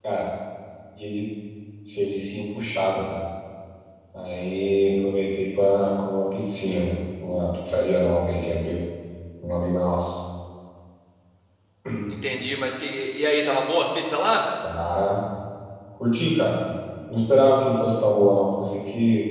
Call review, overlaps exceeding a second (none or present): none